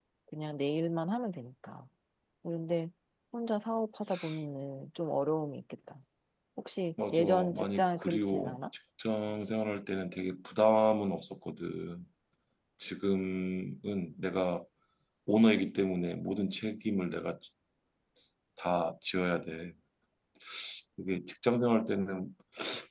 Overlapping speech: Yes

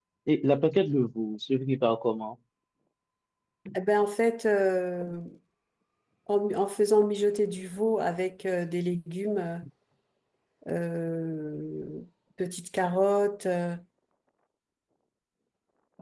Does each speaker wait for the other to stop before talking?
Yes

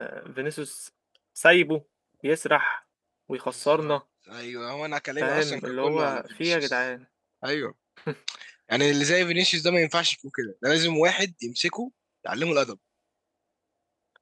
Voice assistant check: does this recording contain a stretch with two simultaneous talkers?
Yes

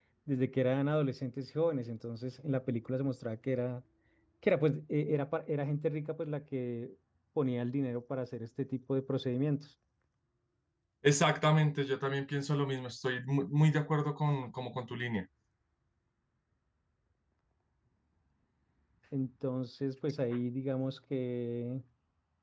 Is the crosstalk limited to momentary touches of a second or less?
Yes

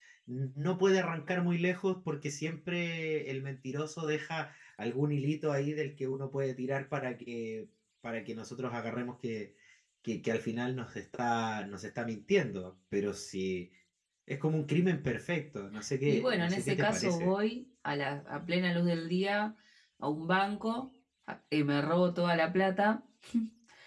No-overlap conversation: No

